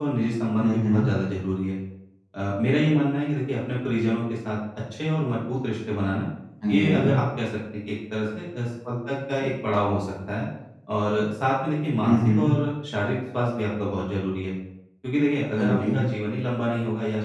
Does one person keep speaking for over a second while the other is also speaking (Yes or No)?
No